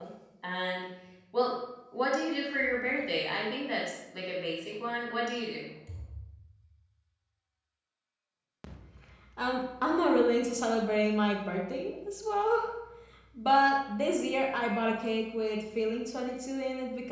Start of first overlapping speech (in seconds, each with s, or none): none